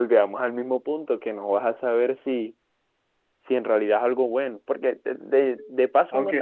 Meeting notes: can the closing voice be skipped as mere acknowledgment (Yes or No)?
No